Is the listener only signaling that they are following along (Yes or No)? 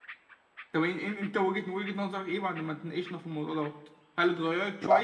Yes